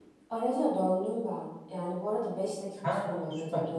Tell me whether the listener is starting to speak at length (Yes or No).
No